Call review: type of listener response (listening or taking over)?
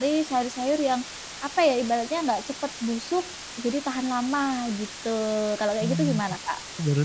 taking over